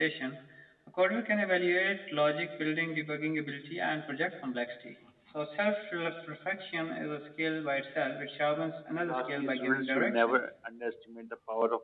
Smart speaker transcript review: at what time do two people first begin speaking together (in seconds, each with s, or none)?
9.0 s